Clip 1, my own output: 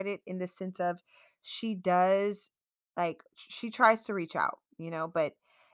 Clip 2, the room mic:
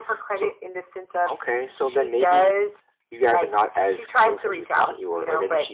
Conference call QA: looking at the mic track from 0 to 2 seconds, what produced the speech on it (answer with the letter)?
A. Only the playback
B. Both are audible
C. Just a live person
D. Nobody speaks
B